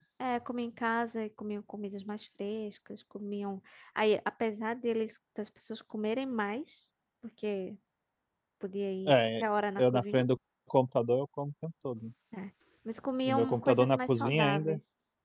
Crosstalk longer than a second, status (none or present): present